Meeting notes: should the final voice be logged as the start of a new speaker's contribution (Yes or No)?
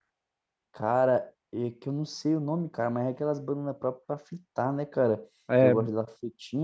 No